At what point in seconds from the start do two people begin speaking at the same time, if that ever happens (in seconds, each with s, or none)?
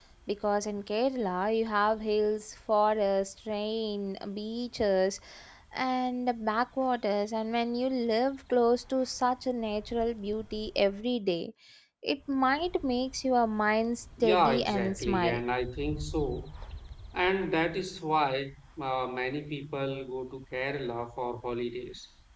14.2 s